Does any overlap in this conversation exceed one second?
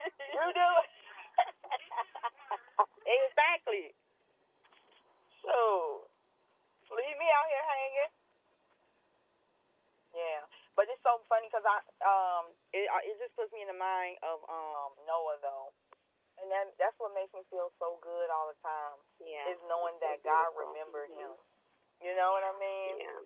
Yes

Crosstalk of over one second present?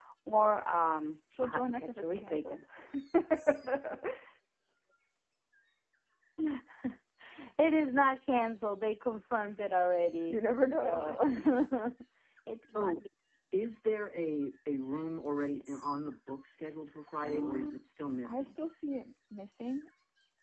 Yes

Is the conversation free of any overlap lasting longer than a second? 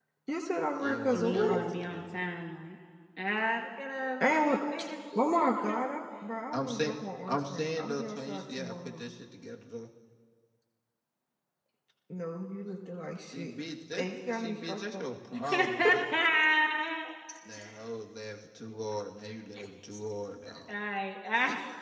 No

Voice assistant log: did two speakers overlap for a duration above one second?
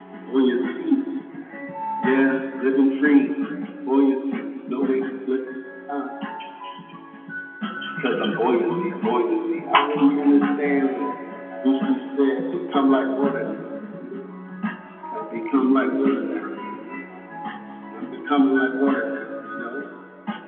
No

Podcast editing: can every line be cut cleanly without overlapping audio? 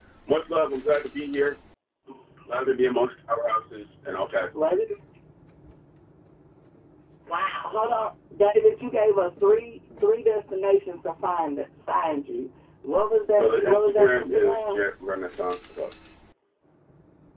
No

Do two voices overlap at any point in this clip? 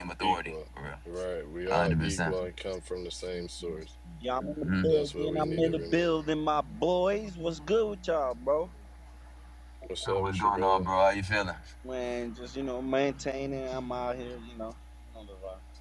Yes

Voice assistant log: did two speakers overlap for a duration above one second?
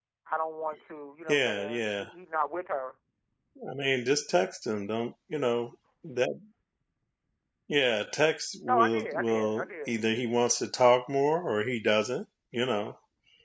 Yes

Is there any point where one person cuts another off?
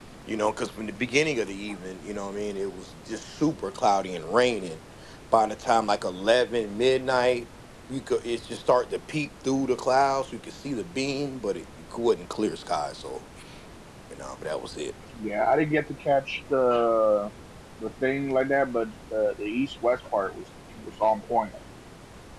No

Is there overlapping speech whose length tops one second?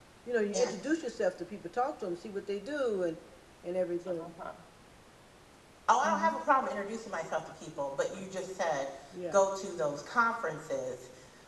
No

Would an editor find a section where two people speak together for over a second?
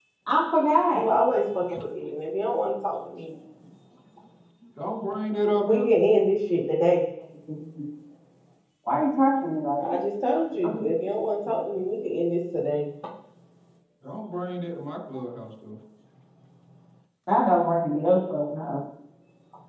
No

